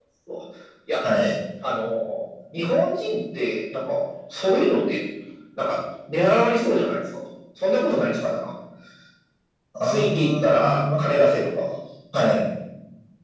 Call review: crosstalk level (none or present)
present